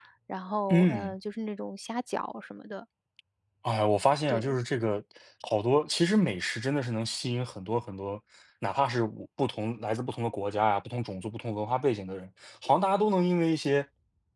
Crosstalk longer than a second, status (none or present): none